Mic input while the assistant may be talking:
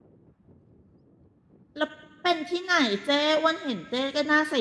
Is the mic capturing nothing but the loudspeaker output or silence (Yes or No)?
No